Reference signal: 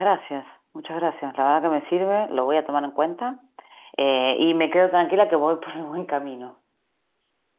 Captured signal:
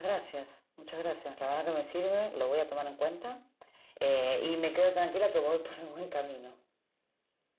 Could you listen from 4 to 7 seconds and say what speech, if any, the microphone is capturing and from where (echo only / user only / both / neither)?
echo only